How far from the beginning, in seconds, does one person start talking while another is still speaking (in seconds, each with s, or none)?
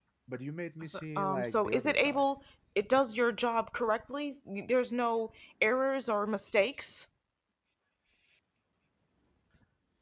0.8 s